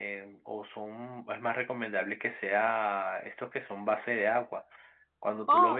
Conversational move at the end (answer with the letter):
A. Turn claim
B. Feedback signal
B